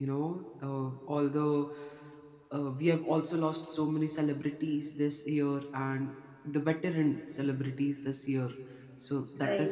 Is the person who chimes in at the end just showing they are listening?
Yes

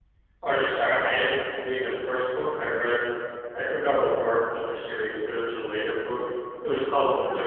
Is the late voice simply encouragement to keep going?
Yes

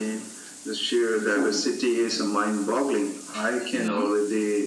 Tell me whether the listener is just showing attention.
Yes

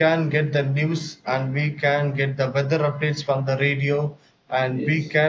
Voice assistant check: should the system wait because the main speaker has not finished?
Yes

